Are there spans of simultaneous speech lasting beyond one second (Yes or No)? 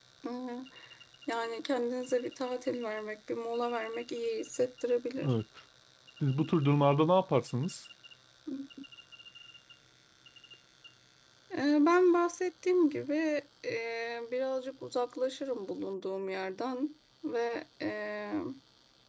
No